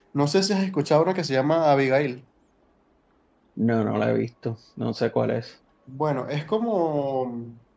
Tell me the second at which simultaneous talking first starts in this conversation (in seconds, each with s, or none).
none